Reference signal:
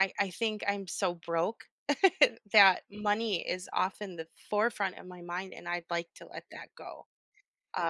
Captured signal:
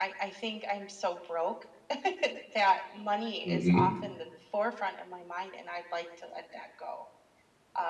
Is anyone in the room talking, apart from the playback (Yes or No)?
Yes